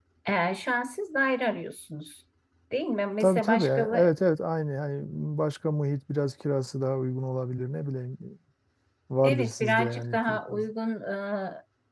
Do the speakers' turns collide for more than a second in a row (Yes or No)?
Yes